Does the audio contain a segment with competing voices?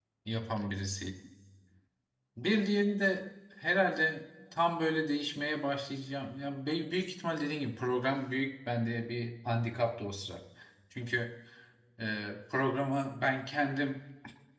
No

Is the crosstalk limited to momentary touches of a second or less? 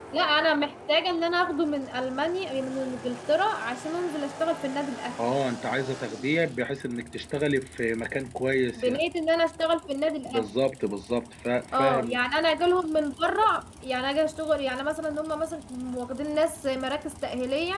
Yes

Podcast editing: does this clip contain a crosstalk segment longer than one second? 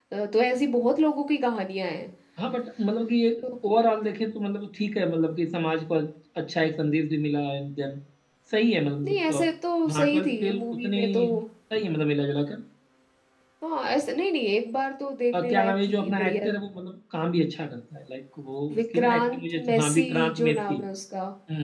Yes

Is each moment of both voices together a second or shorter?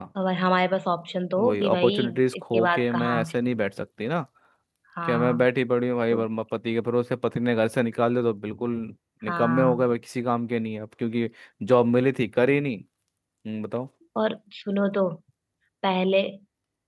No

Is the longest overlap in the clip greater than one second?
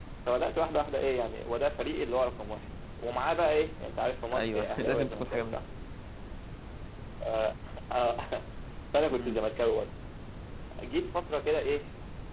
Yes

